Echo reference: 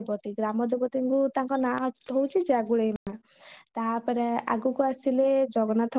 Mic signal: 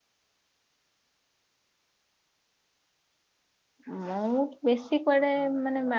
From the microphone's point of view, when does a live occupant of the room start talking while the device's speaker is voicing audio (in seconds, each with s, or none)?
3.9 s